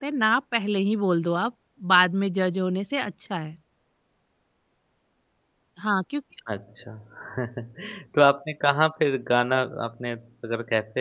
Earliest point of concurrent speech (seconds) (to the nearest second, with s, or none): none